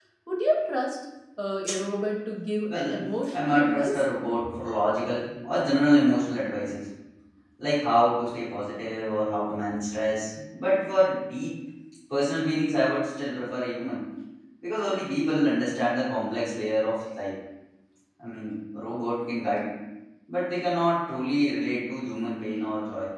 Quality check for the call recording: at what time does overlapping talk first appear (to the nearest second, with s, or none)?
3 s